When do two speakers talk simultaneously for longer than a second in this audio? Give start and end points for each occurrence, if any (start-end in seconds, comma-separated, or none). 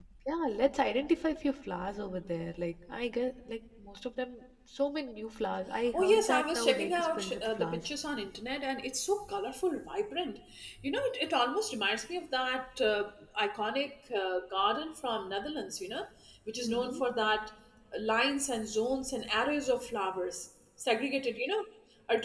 5.9-7.8